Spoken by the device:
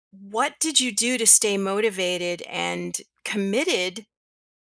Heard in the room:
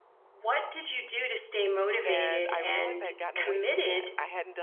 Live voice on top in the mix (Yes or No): No